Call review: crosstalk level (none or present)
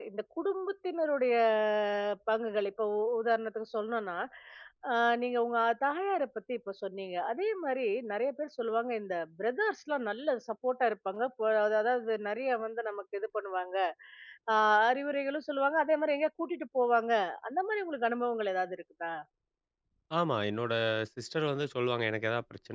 none